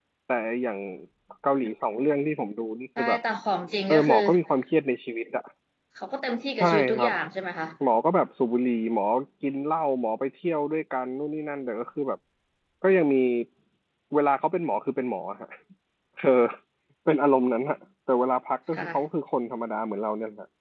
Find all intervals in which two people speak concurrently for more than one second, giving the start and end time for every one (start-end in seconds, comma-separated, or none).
none